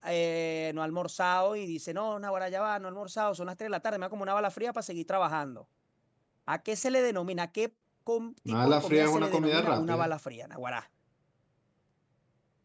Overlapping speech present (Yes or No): Yes